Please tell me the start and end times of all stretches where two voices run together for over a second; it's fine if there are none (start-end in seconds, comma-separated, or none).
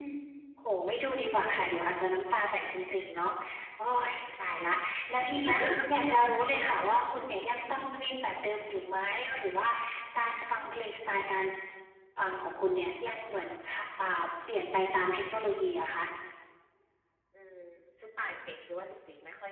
none